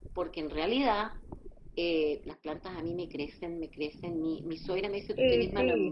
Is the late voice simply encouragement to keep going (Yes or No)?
Yes